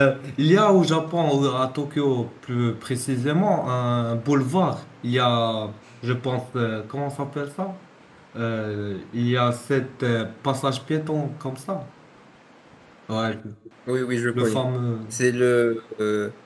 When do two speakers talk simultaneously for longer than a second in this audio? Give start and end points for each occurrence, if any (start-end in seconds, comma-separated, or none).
none